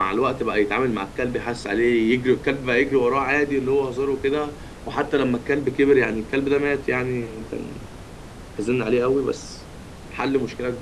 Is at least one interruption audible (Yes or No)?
No